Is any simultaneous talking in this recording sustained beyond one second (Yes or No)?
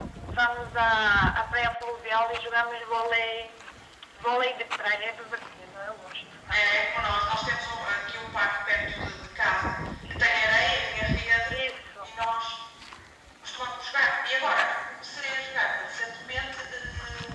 No